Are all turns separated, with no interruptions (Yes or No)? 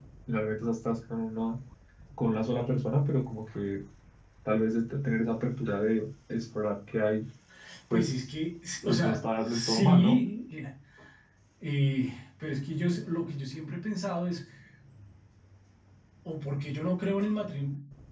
No